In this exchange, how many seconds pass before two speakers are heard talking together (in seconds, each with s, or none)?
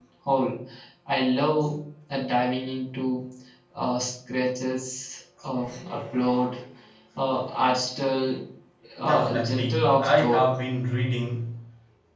9.0 s